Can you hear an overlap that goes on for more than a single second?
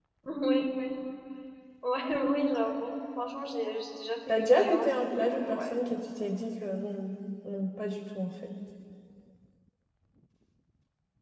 Yes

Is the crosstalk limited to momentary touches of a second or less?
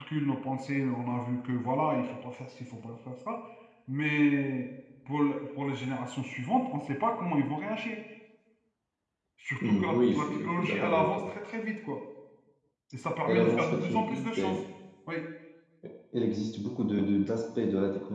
No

